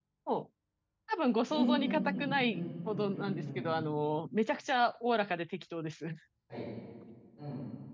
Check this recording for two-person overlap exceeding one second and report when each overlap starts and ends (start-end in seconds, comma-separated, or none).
1.5-3.7